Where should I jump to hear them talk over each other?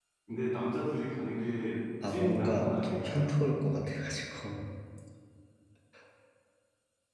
2 s

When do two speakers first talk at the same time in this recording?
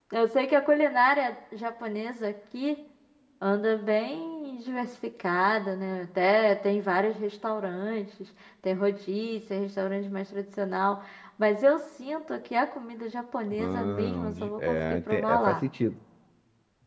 14 s

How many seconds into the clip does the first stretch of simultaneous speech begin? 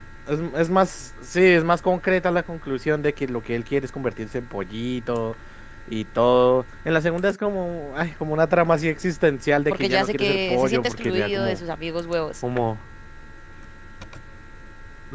10 s

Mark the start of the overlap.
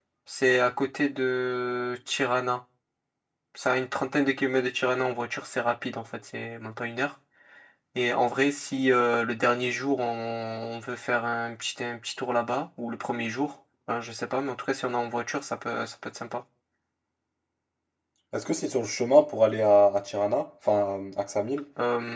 none

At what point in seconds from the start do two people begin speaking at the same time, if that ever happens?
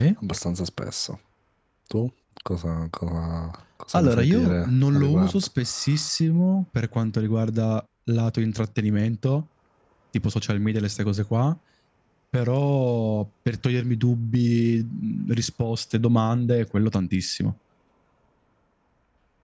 4 s

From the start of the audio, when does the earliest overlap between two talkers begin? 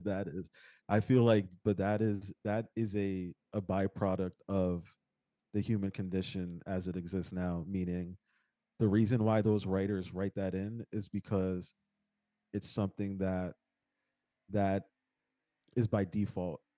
none

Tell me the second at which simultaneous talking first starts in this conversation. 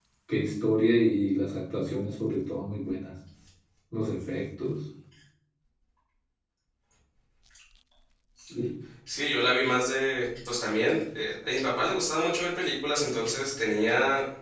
none

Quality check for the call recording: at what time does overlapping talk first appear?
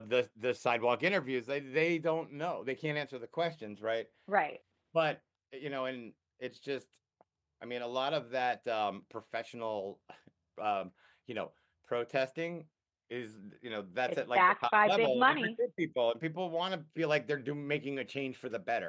14 s

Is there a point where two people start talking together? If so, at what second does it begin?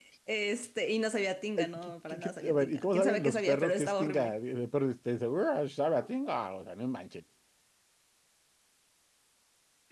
2 s

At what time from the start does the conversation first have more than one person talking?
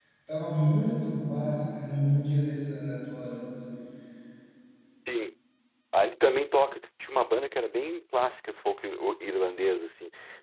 none

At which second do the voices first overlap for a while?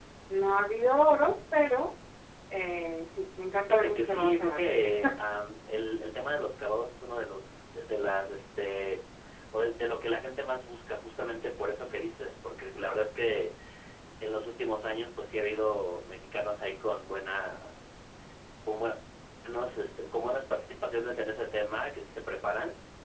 4 s

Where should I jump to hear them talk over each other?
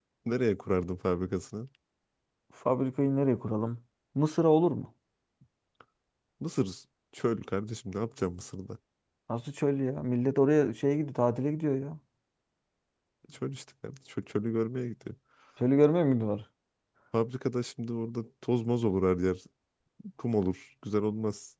none

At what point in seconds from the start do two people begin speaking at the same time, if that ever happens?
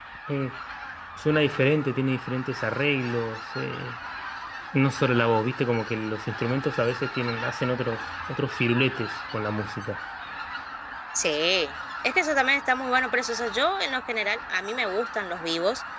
none

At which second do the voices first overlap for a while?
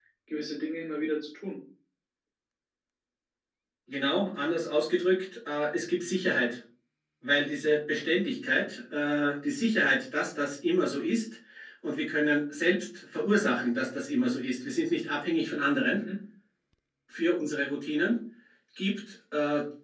none

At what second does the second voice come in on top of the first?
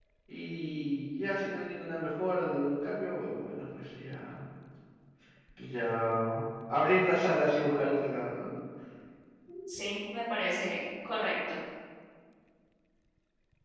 none

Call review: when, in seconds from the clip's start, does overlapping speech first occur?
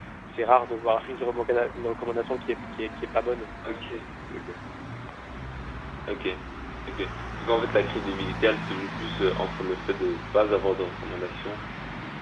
none

